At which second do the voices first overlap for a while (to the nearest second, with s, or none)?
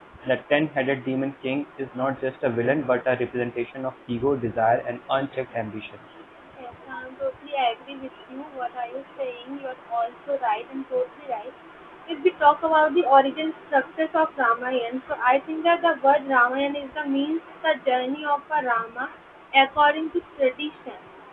none